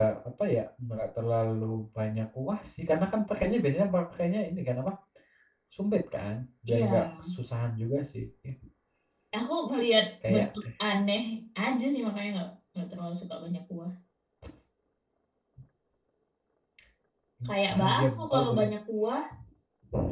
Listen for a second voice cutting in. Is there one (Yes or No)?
Yes